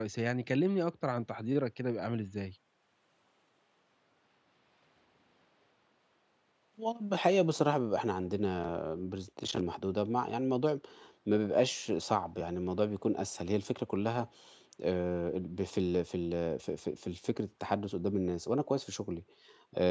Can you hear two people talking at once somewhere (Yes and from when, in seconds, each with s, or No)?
No